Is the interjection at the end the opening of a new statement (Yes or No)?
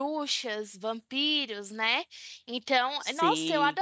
No